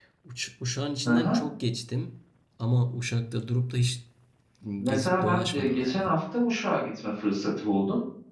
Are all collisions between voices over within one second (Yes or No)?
No